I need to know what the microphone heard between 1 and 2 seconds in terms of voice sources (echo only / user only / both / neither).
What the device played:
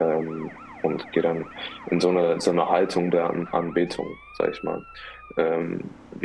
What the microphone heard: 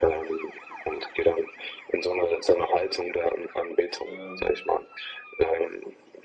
echo only